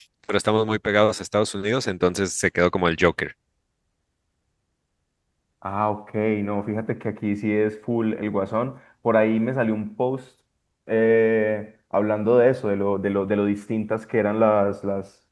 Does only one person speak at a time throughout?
Yes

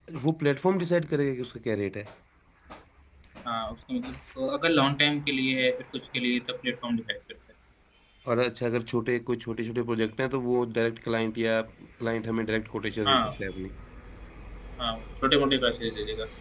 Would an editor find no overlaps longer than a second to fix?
Yes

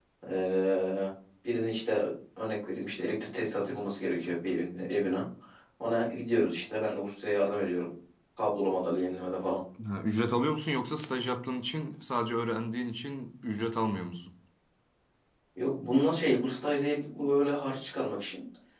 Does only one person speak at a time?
Yes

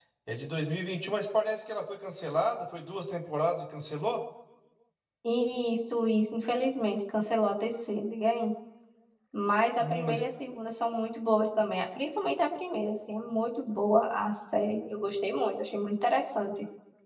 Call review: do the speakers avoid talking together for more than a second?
Yes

